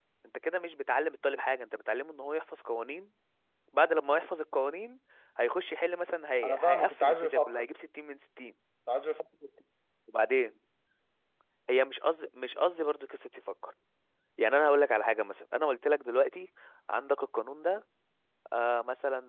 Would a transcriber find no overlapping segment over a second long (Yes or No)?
No